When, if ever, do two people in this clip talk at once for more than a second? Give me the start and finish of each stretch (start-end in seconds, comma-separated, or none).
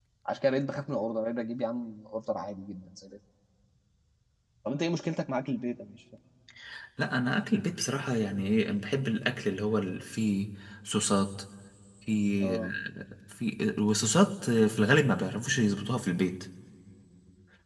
none